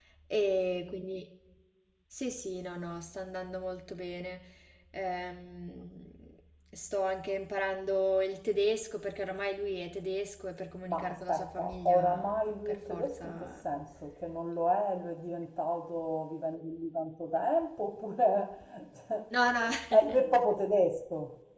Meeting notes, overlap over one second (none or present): present